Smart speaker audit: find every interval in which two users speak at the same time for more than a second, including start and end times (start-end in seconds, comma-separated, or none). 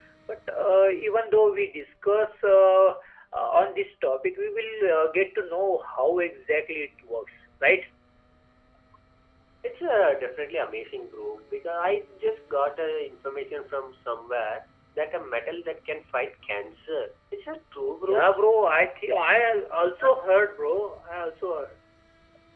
none